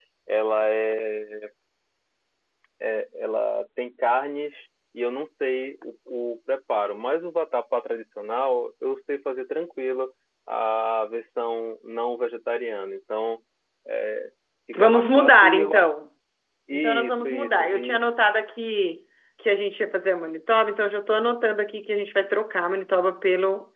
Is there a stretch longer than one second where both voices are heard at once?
Yes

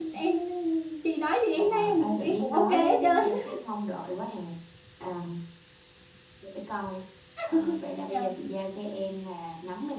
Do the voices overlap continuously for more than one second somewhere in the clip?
Yes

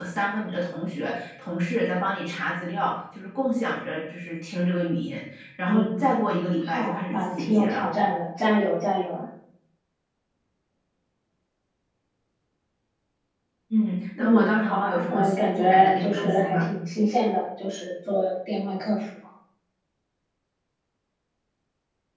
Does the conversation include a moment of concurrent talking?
Yes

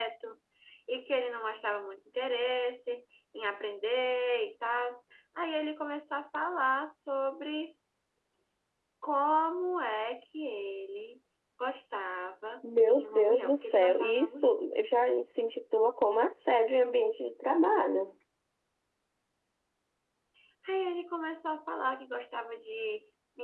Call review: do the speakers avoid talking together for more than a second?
No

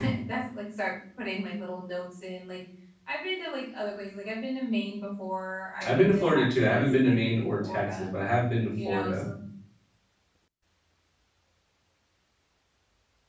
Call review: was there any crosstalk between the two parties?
Yes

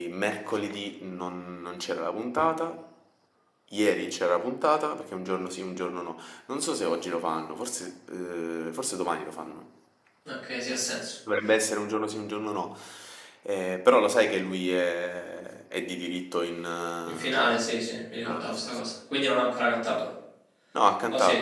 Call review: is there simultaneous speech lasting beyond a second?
Yes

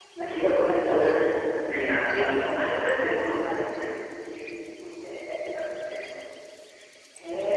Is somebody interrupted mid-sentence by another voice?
Yes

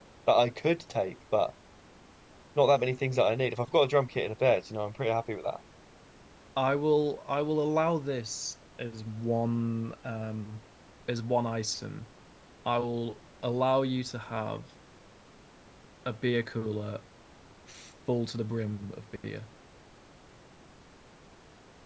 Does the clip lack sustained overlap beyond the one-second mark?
Yes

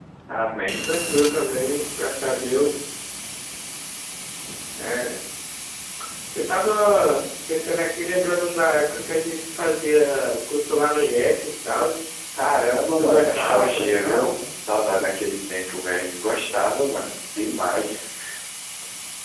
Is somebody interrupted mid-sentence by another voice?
Yes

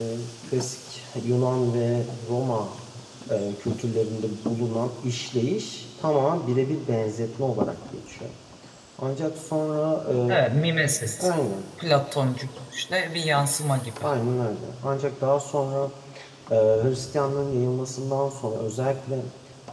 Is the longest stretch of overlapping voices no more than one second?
Yes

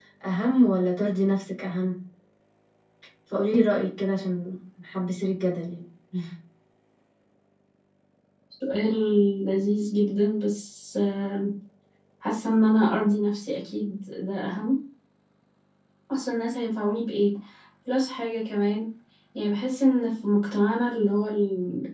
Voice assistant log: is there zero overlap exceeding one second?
Yes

